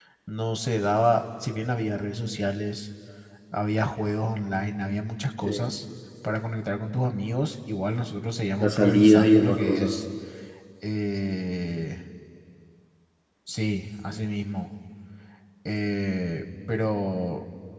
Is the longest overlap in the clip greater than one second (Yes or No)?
Yes